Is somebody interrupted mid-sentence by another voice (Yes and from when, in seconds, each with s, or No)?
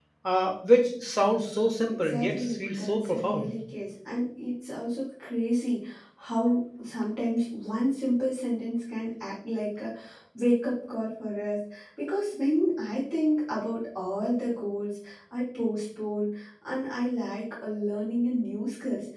Yes, from 1.9 s